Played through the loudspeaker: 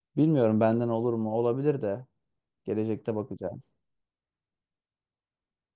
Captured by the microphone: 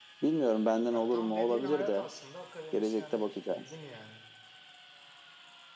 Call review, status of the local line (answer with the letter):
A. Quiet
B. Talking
B